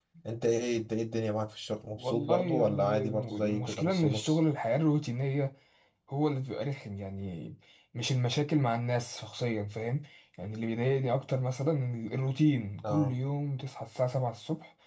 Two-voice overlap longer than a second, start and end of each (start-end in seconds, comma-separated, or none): 2.0-4.4